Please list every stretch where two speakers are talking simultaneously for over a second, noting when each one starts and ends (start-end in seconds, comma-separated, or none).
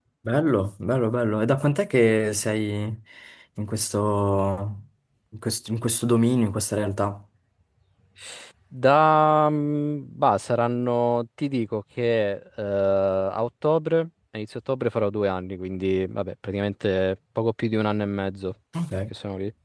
none